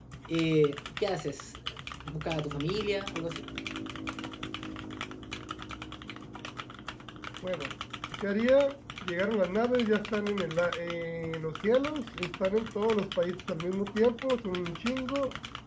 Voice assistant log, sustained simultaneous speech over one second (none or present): none